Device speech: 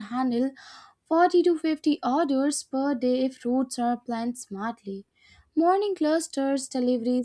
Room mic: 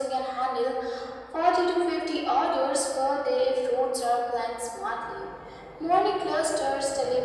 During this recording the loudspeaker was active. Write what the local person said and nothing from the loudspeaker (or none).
none